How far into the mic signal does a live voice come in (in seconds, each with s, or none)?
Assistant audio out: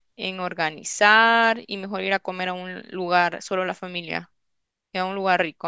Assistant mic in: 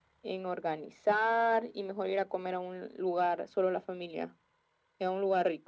none